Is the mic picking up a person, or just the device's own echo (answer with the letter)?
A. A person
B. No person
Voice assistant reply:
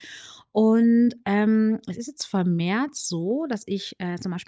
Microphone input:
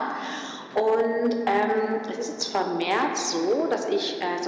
B